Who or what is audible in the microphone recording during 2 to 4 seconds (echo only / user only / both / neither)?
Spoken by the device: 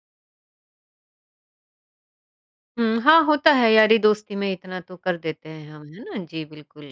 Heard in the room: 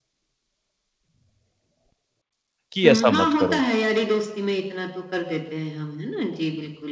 both